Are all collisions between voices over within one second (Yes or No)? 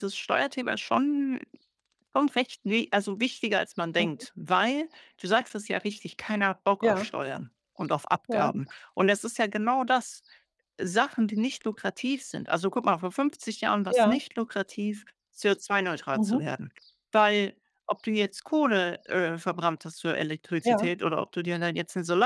Yes